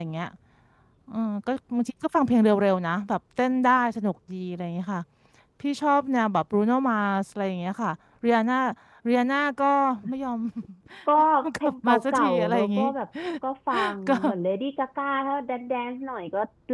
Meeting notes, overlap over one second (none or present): present